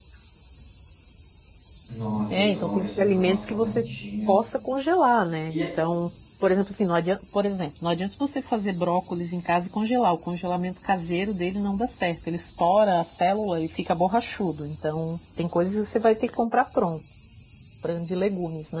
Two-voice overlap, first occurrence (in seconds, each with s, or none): 2.3 s